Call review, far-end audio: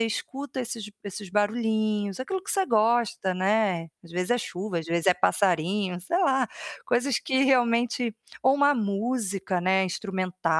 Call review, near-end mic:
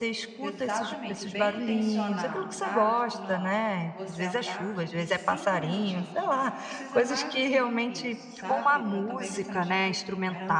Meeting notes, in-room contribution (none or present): present